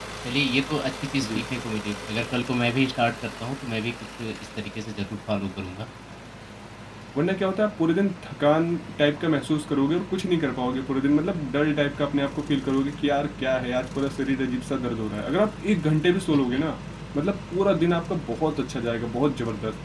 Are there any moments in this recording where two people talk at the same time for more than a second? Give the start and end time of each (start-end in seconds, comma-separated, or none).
none